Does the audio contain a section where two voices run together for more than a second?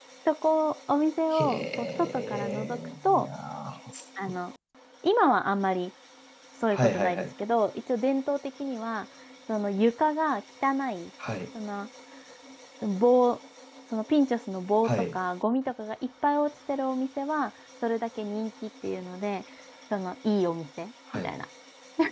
Yes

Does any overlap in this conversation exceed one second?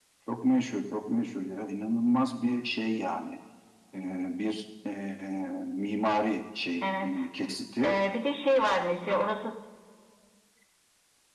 No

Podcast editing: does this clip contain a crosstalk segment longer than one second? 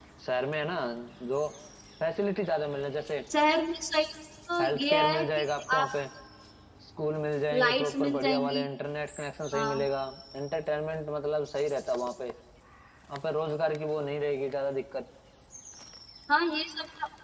Yes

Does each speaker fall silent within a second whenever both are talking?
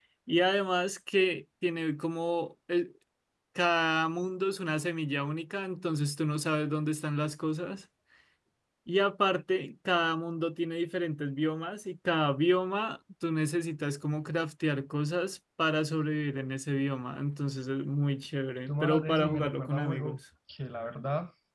No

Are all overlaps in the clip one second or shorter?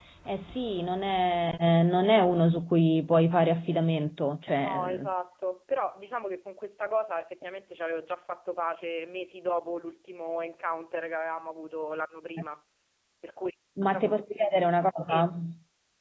Yes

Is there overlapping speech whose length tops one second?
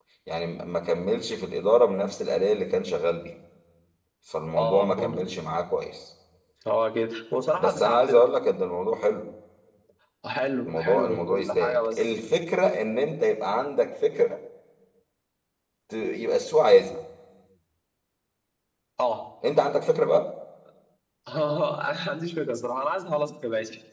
Yes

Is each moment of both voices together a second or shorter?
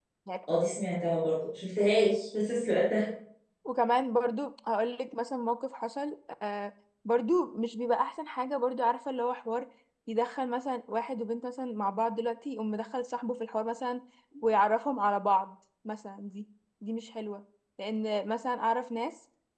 Yes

